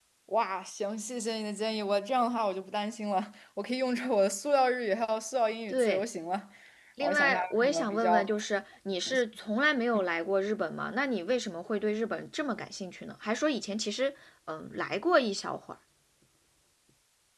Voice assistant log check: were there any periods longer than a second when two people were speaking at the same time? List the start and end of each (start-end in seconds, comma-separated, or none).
7.0-8.3